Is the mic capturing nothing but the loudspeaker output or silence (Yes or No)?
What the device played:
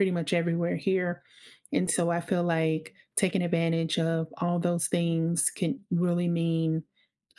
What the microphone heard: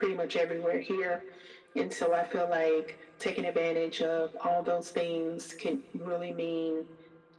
Yes